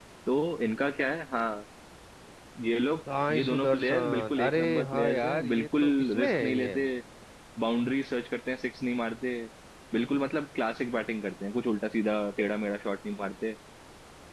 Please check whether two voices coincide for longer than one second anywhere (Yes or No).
Yes